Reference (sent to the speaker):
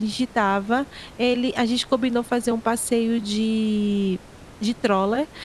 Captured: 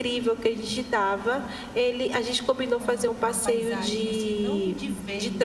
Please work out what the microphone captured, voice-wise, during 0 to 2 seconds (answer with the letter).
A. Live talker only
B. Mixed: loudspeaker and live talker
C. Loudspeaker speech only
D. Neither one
C